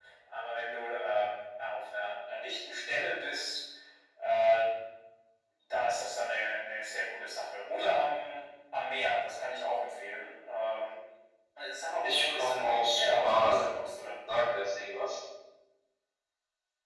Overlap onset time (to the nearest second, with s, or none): 12 s